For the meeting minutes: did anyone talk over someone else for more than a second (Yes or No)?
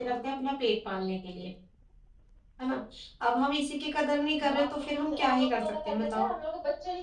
Yes